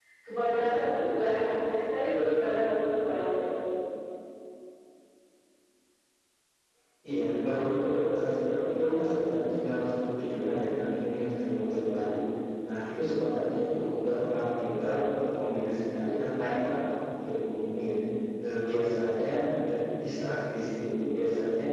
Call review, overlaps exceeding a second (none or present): none